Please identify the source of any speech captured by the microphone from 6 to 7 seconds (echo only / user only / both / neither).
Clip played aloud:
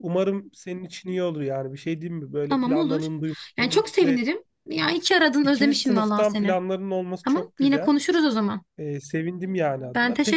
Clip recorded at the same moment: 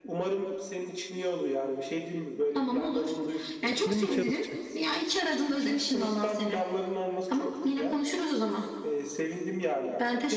echo only